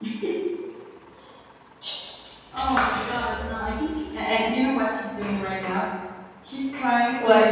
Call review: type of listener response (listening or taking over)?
listening